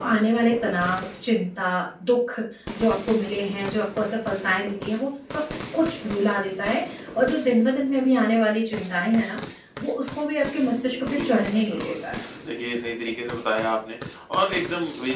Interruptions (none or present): present